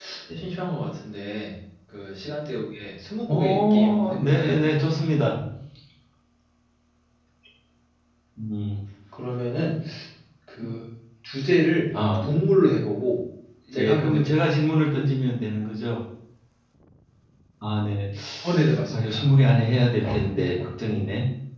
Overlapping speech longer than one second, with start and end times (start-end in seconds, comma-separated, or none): 3.3-4.6